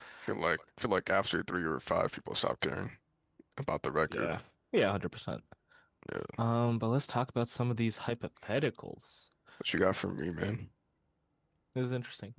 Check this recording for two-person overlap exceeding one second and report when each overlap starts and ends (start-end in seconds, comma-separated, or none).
none